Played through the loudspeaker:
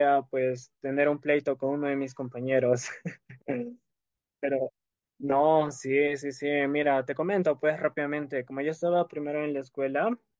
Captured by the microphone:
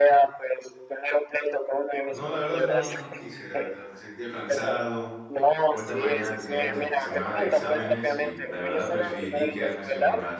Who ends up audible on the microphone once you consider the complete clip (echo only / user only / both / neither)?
both